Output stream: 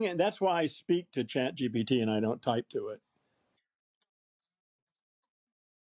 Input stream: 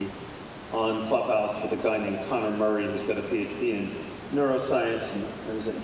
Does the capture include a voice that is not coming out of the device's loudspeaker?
Yes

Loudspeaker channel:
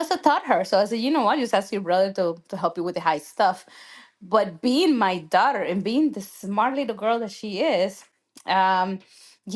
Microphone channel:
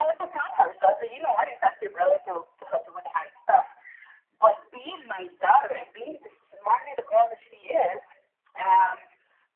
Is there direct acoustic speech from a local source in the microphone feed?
No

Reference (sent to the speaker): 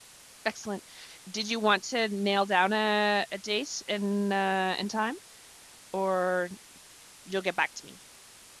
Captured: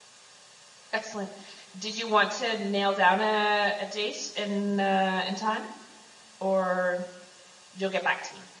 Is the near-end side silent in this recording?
Yes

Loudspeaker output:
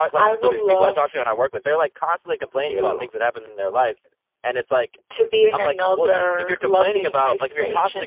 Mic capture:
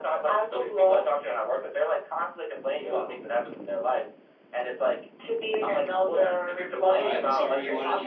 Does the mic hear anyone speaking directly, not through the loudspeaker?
Yes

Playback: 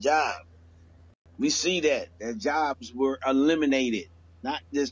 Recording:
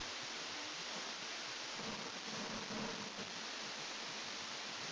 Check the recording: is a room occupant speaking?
No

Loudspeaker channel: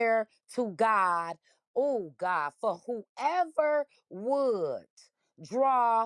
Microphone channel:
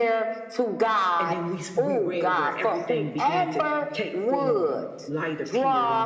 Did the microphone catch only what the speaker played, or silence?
No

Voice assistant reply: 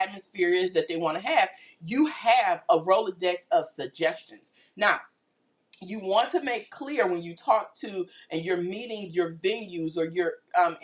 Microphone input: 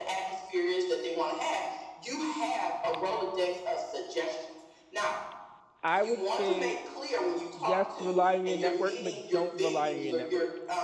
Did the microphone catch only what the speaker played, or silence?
No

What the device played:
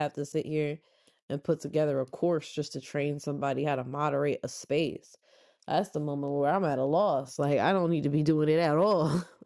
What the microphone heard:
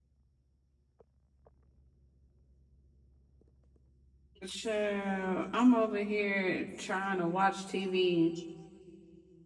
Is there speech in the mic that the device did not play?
Yes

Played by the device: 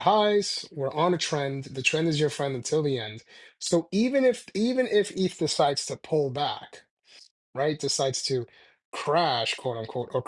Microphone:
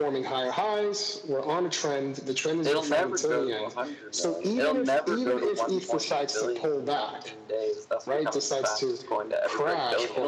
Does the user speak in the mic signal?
Yes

